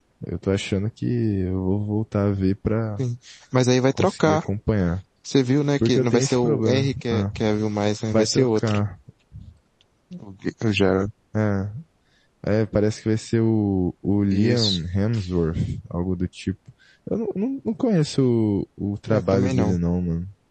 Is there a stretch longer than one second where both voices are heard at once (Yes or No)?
Yes